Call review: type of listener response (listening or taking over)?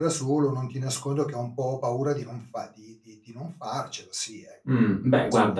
taking over